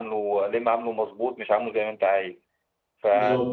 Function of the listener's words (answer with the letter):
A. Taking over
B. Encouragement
B